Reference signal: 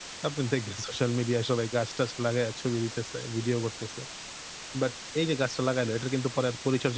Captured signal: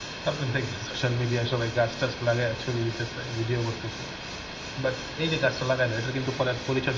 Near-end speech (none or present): none